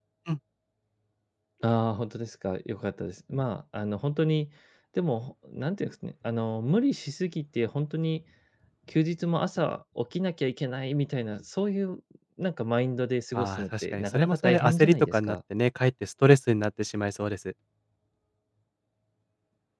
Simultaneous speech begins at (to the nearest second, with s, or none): 13 s